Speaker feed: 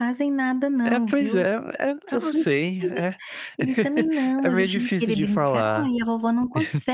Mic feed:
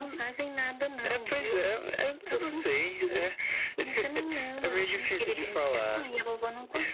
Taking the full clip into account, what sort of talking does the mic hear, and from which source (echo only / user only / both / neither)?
echo only